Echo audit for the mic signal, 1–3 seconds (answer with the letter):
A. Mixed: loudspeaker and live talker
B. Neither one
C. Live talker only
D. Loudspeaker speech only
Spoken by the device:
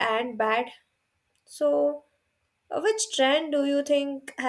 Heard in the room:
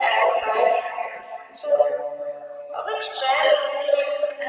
D